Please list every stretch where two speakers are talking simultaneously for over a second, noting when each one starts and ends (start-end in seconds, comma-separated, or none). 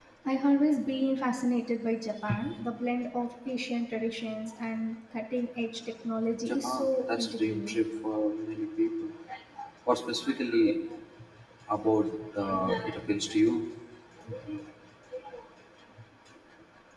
6.5-7.8